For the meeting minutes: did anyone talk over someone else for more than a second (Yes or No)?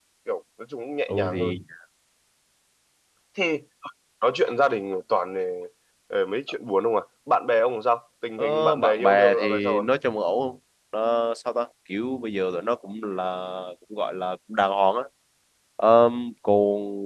Yes